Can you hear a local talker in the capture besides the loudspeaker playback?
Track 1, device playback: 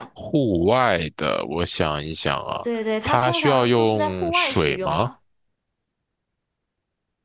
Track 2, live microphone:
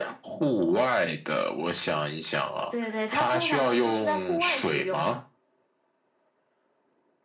No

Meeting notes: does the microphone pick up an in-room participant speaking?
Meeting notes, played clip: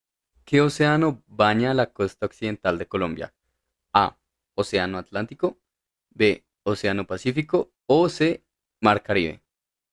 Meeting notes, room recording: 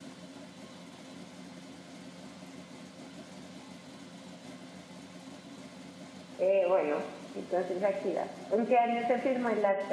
Yes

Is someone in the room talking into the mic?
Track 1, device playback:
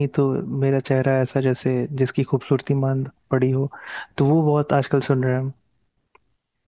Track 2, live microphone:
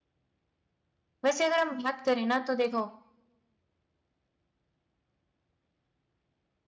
Yes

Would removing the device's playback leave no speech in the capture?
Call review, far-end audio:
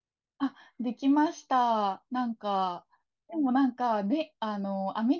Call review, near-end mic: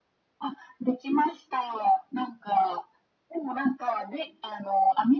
Yes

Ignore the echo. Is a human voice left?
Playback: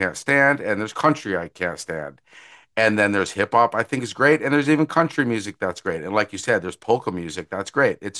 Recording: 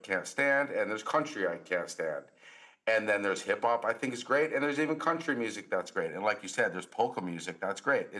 No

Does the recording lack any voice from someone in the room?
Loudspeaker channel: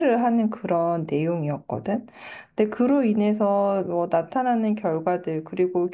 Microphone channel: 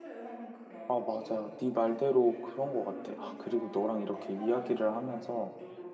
No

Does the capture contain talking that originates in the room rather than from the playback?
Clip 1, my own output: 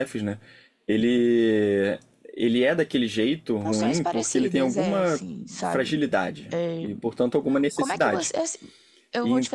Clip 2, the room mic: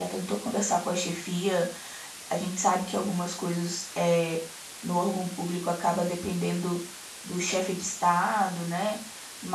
Yes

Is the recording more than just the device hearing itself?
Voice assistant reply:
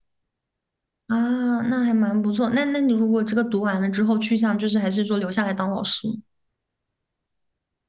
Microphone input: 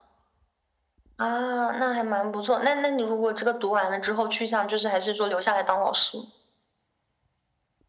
No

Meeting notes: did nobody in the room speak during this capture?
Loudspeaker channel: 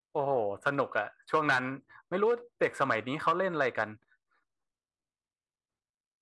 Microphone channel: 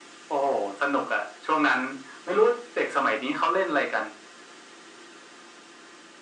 Yes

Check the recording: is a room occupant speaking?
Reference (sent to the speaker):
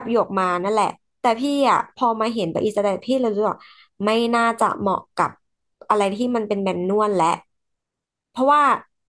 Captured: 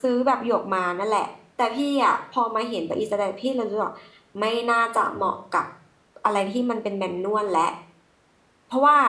No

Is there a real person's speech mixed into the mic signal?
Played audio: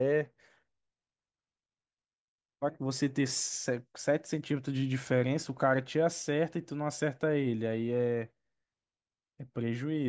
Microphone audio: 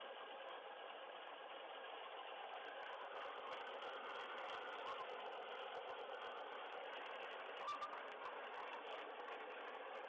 No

